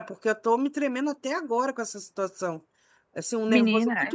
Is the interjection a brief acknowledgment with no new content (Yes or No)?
Yes